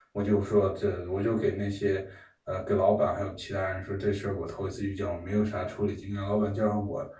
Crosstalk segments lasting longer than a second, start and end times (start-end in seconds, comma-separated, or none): none